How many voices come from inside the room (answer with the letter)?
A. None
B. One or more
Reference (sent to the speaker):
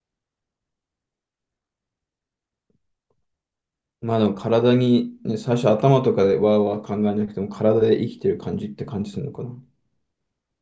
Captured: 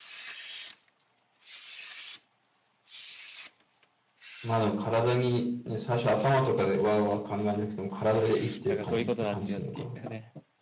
B